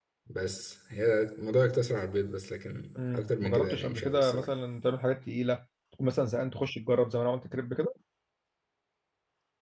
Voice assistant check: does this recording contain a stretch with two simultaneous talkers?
Yes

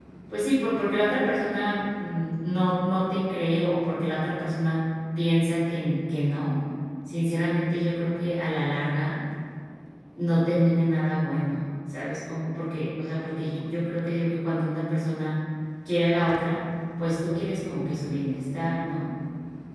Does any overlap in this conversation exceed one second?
No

